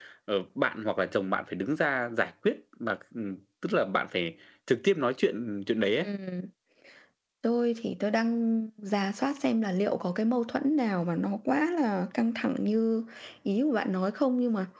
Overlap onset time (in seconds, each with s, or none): none